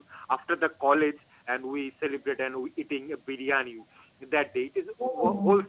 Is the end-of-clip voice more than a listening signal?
No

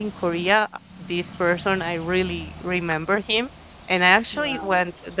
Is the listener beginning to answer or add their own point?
No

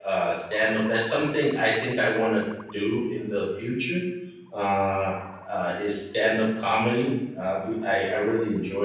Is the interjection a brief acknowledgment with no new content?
Yes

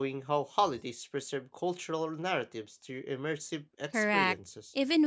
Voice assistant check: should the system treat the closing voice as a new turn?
Yes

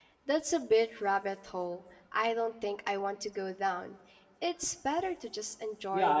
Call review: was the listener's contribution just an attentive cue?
No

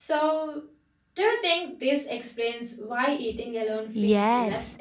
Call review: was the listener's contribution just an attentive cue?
No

